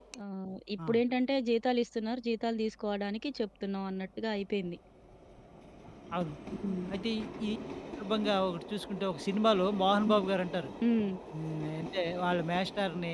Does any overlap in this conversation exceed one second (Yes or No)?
No